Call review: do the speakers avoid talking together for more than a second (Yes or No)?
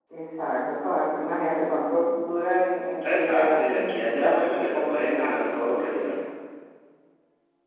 No